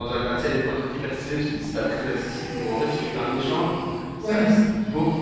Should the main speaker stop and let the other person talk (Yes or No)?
No